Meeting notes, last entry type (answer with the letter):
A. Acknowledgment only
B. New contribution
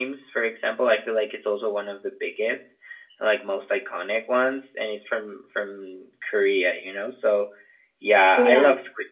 A